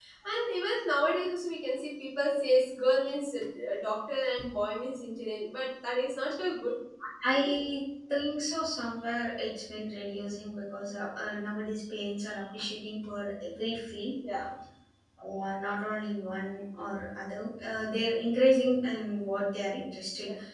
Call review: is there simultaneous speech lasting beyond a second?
No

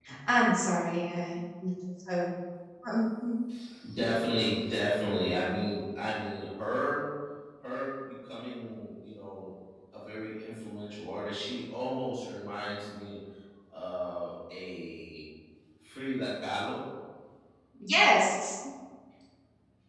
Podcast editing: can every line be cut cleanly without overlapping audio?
Yes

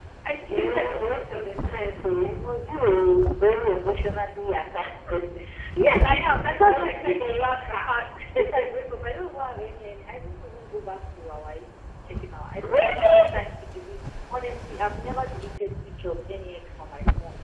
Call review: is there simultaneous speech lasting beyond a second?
Yes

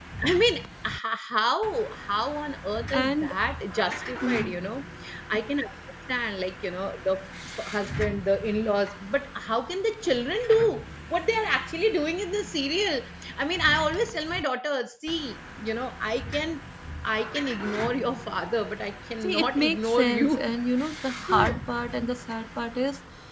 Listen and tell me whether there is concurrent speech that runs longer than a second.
Yes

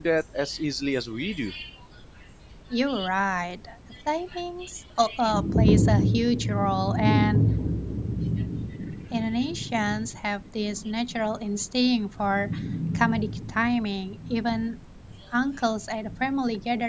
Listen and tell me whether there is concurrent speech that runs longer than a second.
No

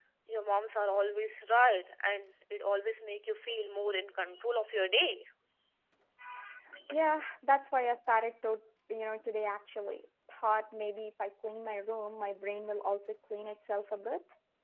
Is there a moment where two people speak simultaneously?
No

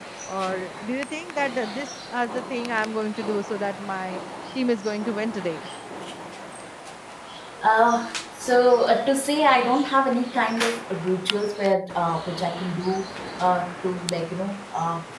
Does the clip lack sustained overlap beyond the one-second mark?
Yes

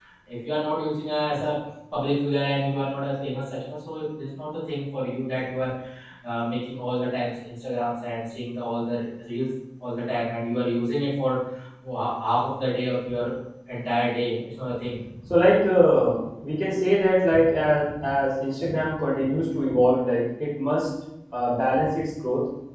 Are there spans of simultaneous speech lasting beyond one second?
No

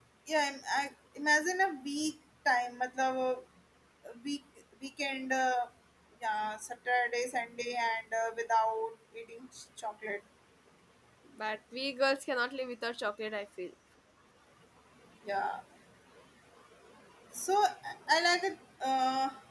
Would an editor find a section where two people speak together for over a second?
No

